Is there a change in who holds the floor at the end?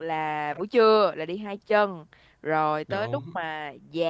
No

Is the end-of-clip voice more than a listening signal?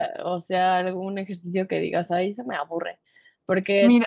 No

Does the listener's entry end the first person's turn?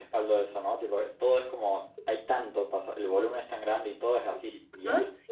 Yes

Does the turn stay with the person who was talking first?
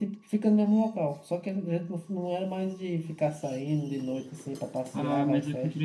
No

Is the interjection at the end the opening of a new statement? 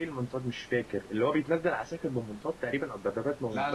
Yes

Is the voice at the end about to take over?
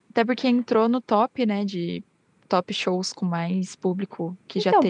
Yes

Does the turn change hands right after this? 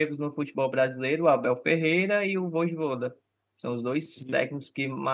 No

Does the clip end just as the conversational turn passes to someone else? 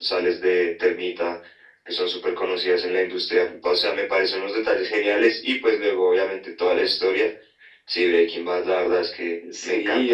Yes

